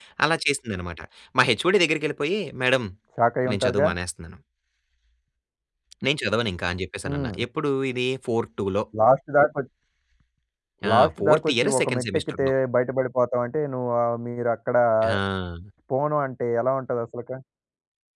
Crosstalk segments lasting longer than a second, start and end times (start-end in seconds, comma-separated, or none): 10.9-12.5